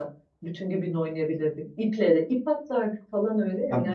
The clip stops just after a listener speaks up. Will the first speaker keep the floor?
No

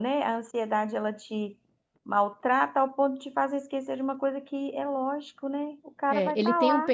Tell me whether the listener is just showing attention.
No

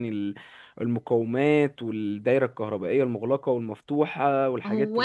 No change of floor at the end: No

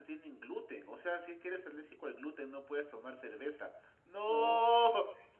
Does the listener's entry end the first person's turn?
Yes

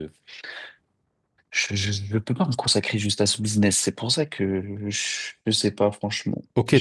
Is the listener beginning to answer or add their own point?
Yes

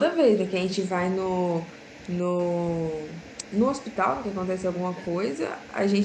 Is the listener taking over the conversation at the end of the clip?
No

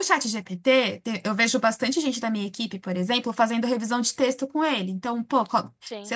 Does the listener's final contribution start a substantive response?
No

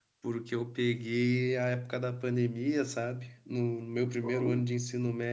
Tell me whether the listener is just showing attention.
Yes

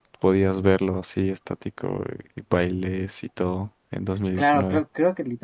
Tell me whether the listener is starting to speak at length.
Yes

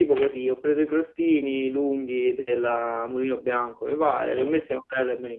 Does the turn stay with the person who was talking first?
Yes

